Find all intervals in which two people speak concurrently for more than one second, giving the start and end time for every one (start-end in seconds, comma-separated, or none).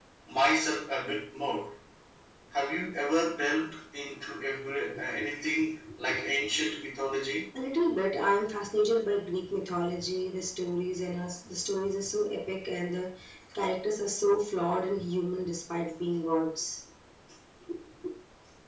none